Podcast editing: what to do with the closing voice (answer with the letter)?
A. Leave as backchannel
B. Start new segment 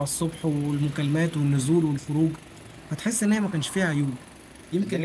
B